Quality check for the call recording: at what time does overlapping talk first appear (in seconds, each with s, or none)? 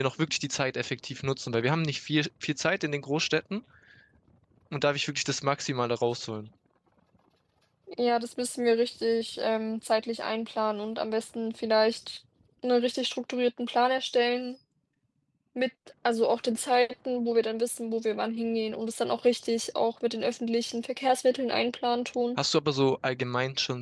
none